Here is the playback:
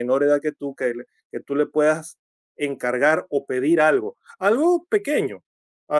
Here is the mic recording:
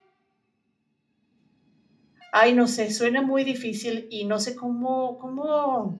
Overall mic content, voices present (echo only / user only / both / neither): user only